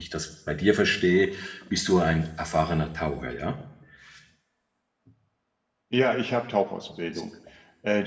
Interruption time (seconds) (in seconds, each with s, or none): none